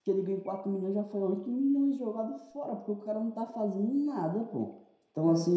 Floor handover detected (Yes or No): No